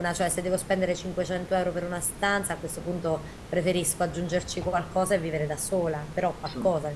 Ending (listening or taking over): listening